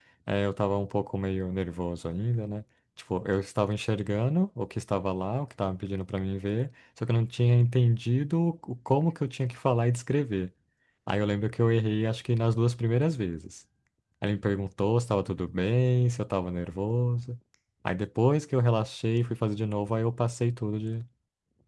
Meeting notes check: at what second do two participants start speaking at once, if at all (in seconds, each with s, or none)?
none